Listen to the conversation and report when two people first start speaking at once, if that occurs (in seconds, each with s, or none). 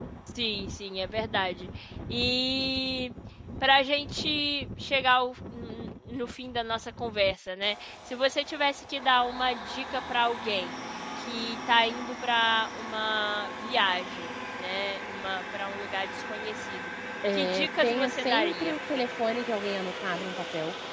17.3 s